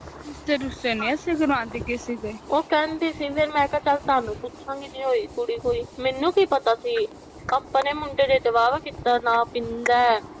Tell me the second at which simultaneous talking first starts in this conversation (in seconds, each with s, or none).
none